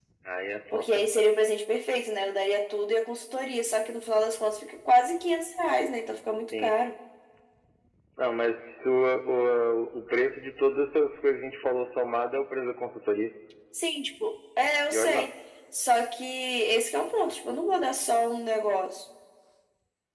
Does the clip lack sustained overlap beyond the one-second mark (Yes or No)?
Yes